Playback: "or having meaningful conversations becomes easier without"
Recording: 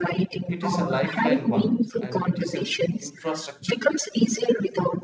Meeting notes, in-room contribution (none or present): present